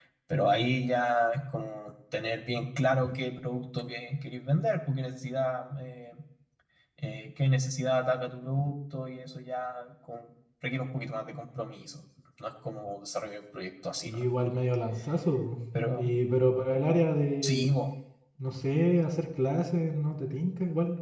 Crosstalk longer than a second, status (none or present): none